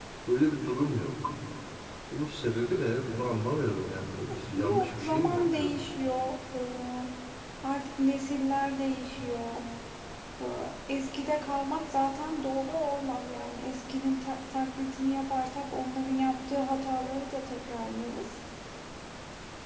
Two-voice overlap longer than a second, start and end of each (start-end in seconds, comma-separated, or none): 4.5-5.8